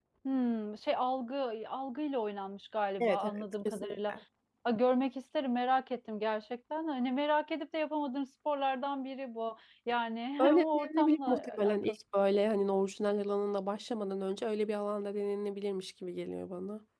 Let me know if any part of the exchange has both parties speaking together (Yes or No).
Yes